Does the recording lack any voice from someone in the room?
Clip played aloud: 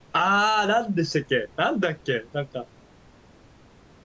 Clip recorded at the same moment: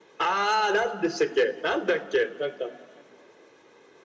Yes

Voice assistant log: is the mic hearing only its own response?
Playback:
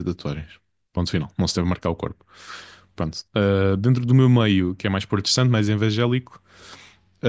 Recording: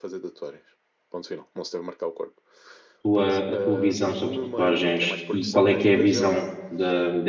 No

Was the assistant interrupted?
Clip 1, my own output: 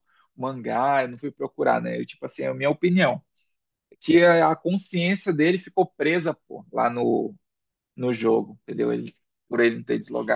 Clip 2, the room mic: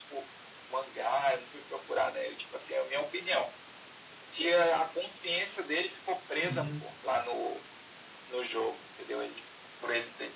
Yes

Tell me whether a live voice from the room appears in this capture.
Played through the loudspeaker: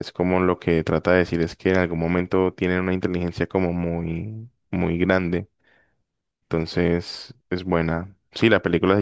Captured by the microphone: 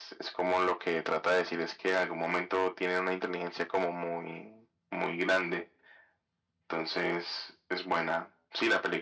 No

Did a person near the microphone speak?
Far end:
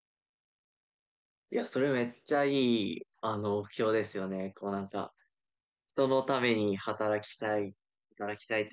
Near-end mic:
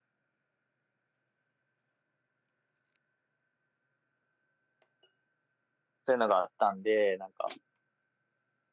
Yes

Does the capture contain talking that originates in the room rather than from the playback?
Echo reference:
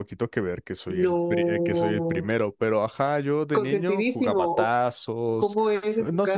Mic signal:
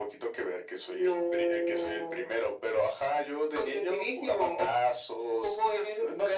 No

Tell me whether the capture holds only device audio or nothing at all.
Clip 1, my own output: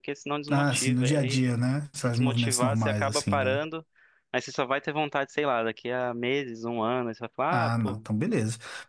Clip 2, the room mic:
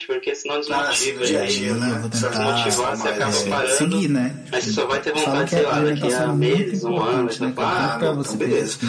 No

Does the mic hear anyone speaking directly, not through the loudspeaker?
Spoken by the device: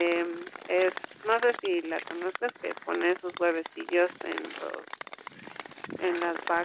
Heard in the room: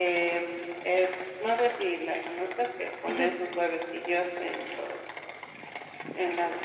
Yes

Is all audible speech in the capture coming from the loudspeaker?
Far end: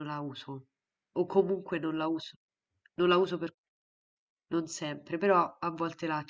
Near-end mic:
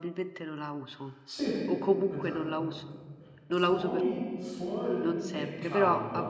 No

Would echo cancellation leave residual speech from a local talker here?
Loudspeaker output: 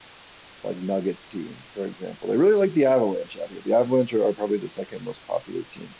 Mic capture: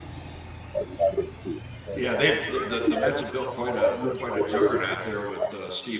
Yes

